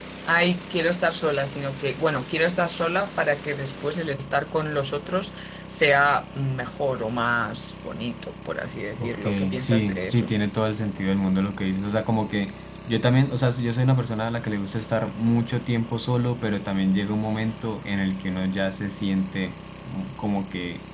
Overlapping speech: Yes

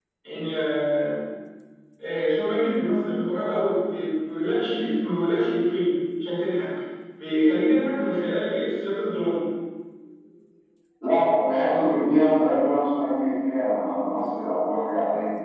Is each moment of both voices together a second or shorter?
Yes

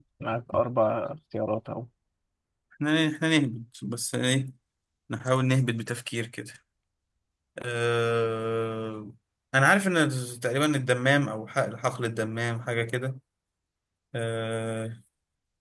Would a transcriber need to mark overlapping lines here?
No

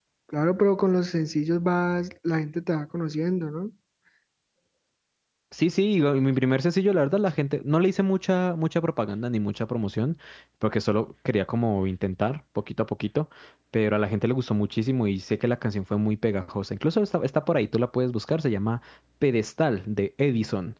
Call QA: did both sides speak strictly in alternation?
Yes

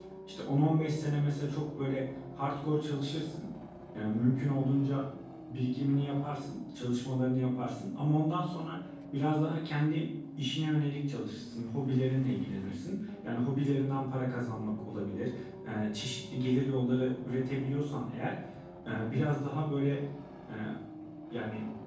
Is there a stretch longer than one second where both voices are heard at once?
No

